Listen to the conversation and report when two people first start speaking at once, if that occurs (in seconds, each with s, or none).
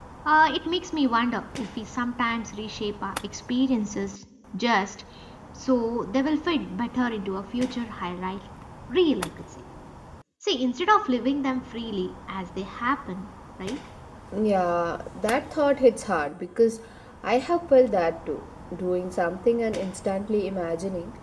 none